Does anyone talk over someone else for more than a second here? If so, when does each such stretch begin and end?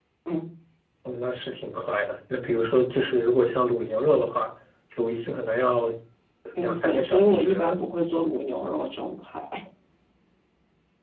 6.6-7.8

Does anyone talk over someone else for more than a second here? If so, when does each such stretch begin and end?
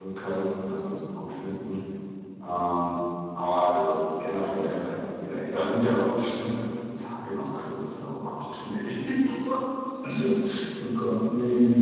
none

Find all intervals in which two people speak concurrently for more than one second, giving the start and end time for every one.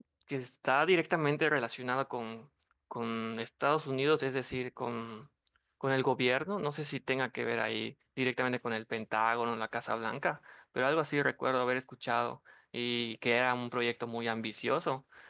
none

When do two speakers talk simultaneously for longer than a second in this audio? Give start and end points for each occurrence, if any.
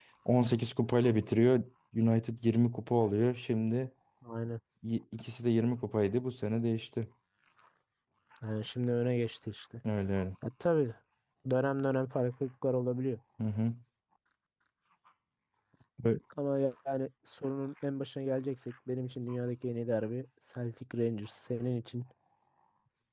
none

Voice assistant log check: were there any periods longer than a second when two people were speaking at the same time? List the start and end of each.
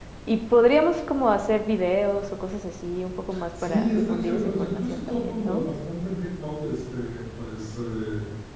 3.6-5.6

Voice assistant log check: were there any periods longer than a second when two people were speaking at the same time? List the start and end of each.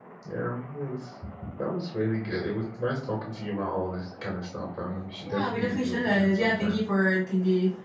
5.3-6.8

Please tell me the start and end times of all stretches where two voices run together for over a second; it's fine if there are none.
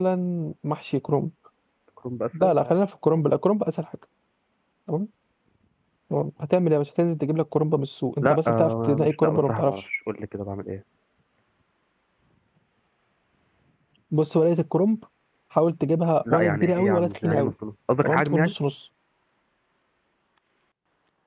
8.2-9.7, 16.3-17.5

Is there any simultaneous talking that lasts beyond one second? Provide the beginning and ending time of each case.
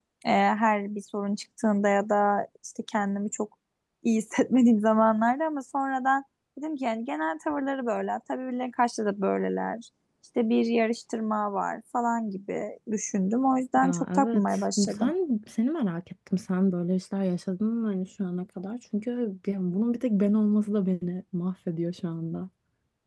13.8-15.1

